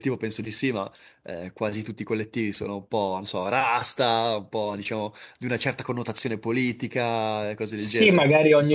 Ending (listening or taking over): taking over